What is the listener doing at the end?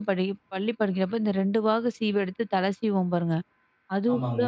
listening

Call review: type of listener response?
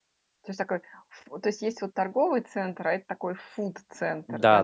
taking over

